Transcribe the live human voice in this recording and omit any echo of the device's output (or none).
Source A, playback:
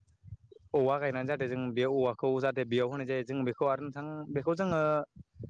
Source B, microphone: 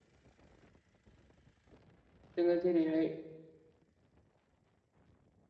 जोङो जेरैहाय